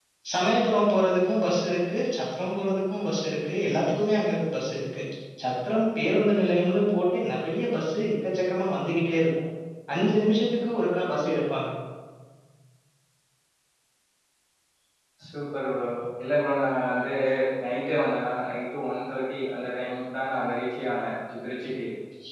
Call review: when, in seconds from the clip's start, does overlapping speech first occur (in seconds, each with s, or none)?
none